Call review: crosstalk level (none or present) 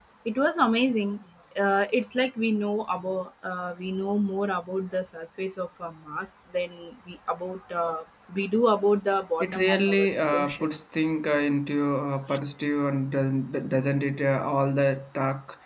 present